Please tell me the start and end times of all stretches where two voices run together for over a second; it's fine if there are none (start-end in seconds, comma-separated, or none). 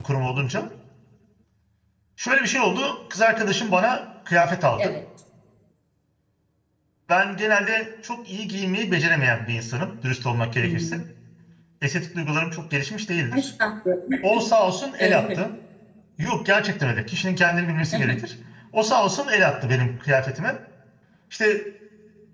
none